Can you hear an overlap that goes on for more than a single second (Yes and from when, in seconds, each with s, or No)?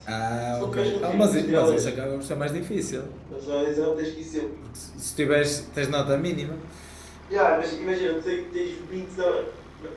Yes, from 0.6 s